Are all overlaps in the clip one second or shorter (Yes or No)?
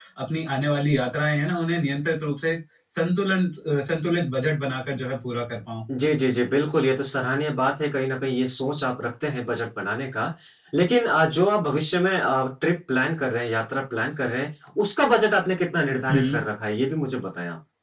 Yes